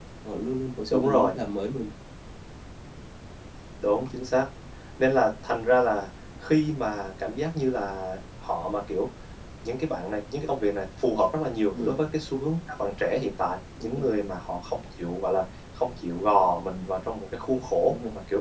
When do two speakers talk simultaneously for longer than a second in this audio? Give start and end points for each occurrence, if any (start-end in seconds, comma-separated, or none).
none